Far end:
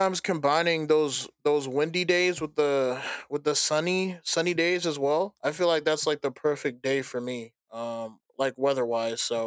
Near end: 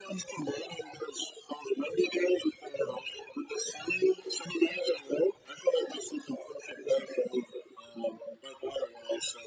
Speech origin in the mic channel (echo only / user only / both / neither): echo only